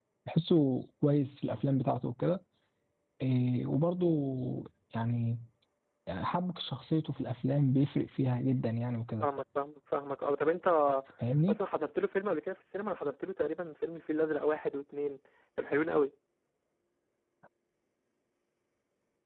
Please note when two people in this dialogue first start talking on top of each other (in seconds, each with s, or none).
none